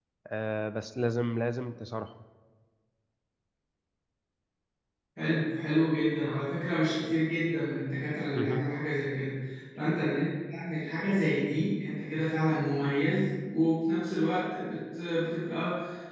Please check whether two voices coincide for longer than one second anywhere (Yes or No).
No